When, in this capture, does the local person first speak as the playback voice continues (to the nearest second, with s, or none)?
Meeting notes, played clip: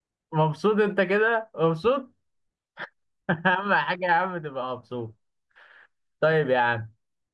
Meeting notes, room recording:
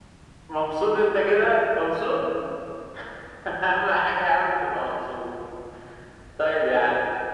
none